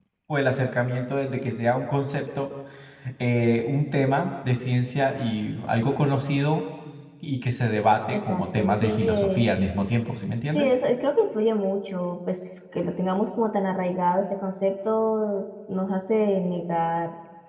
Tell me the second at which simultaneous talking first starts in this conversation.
8.1 s

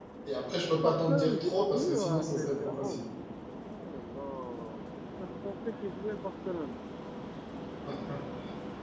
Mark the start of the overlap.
0.8 s

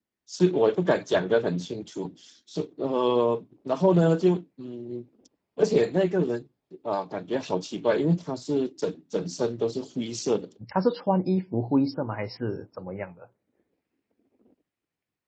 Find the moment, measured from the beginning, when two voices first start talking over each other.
none

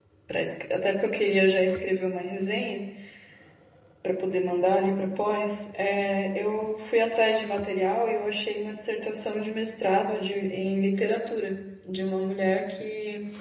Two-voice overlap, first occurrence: none

